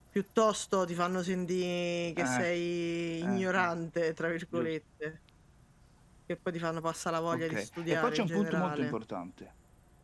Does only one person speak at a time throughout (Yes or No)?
No